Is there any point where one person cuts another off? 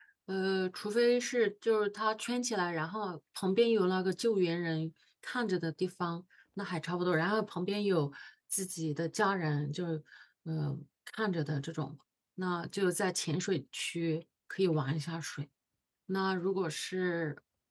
No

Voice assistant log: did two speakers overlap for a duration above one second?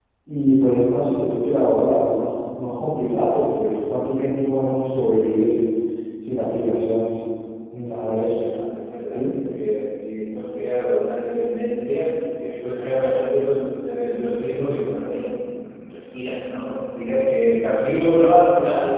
No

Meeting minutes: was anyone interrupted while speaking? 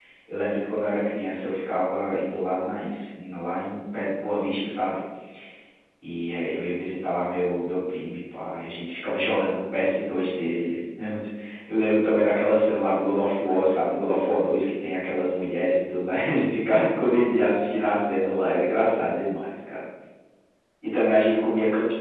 No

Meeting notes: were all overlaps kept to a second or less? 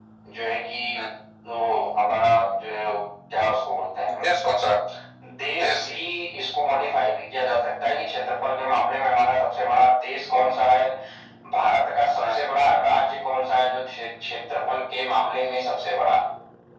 Yes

